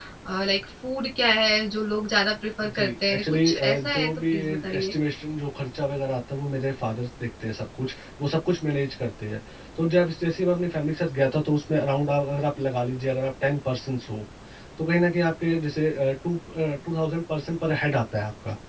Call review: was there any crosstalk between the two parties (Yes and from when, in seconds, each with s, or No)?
Yes, from 2.6 s